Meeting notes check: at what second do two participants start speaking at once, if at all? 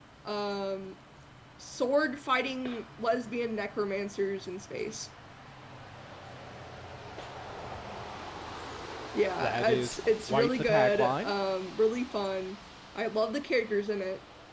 9 s

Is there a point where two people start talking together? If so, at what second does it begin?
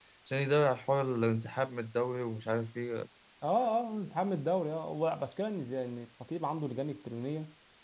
none

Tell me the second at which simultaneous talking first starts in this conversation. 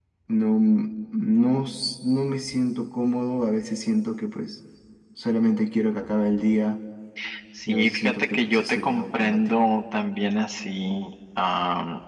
8 s

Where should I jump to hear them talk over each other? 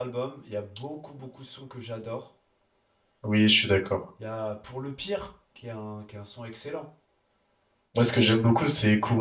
none

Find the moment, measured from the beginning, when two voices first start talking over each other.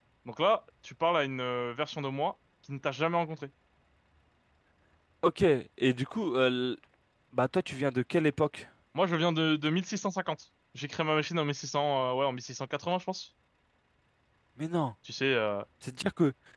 none

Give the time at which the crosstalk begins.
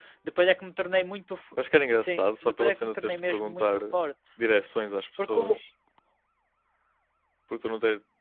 2 s

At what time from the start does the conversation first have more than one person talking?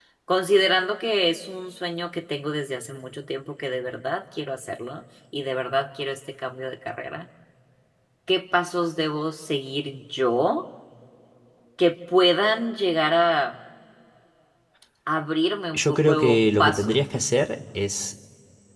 16 s

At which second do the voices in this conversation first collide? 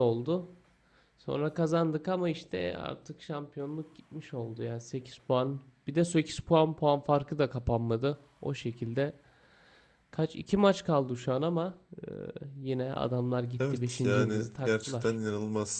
14 s

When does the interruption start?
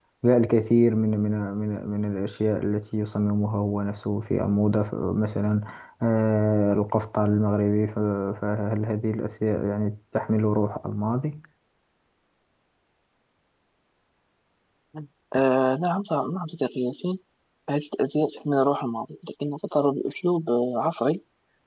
none

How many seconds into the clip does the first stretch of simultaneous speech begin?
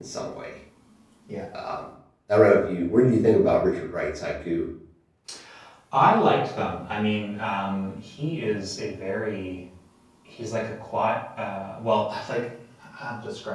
none

